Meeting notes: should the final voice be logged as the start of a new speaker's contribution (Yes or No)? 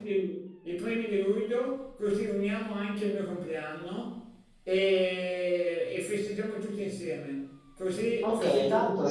Yes